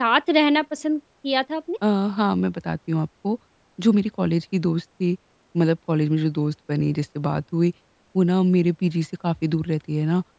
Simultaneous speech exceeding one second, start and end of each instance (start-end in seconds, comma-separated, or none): none